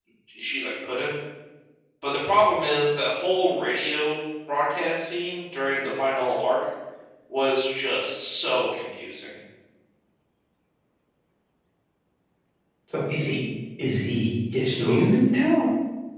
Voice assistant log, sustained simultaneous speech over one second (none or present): none